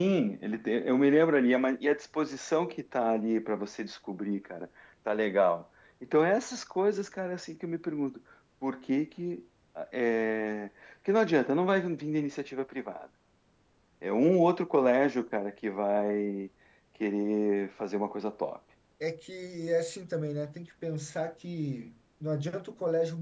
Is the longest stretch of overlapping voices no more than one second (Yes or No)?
Yes